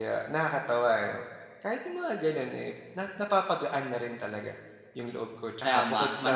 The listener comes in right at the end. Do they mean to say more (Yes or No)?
Yes